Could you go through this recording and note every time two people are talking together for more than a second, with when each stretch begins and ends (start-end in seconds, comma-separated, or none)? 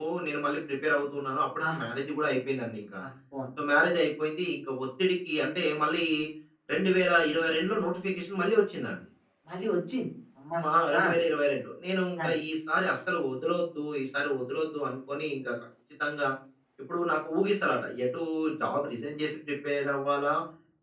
none